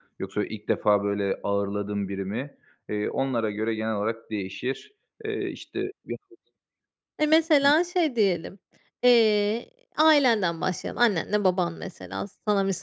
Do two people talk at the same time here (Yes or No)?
No